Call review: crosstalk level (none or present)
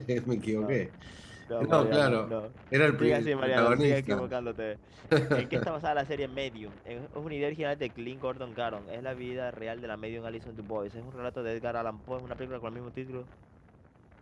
present